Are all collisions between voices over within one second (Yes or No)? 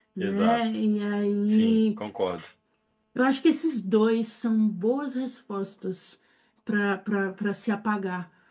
Yes